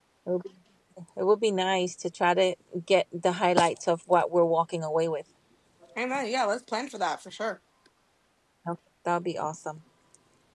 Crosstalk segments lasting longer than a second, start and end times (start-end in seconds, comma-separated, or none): none